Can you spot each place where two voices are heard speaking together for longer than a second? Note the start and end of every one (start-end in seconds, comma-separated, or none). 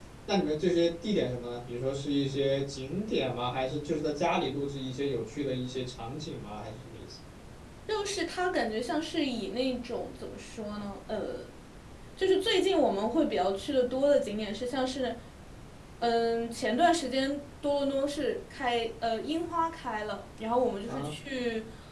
none